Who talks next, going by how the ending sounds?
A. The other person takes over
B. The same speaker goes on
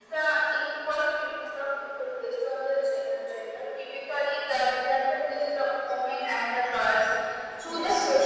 B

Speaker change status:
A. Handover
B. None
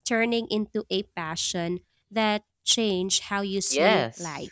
A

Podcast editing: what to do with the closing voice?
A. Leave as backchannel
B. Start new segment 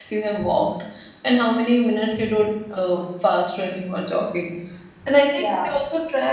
A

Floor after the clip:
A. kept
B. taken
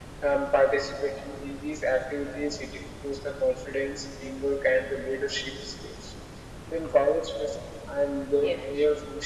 A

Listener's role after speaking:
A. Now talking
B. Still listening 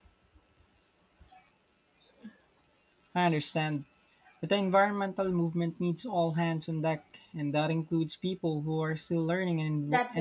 A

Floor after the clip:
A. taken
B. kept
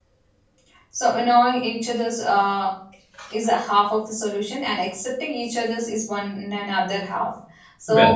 B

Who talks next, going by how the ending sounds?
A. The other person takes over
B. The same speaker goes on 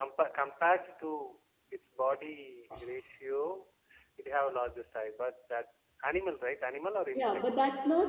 A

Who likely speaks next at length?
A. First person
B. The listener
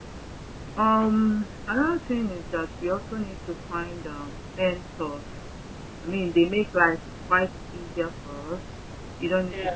A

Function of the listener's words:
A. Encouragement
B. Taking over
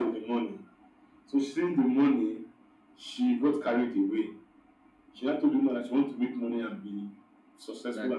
A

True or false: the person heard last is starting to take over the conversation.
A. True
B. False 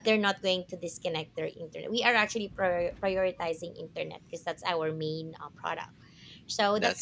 B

